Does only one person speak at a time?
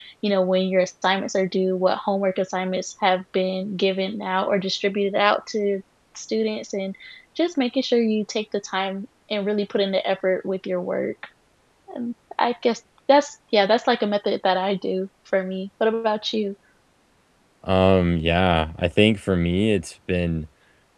Yes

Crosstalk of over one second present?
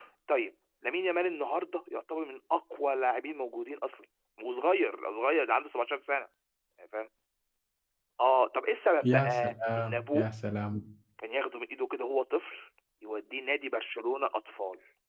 Yes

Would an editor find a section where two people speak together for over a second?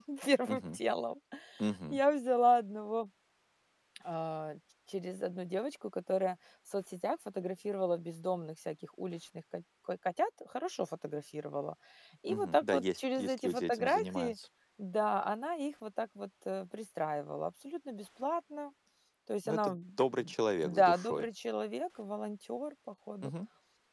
Yes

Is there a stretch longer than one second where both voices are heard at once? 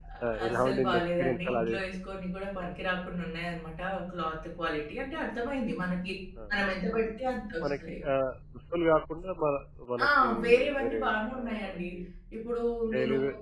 Yes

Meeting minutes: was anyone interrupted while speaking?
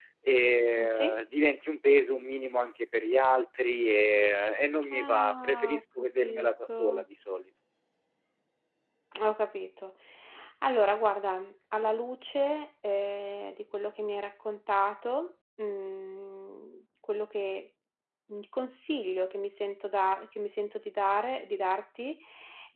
Yes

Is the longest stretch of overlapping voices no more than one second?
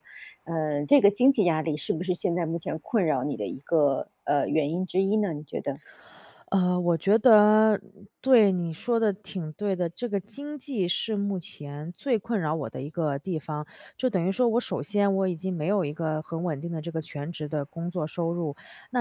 Yes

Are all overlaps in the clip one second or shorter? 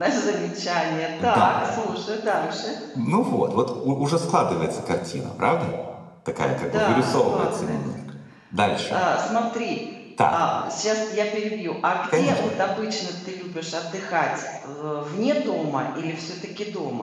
No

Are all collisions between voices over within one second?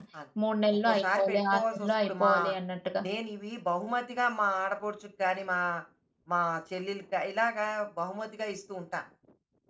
No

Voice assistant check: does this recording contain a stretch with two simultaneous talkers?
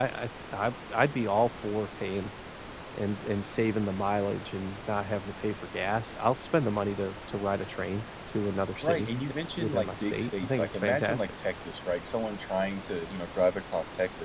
Yes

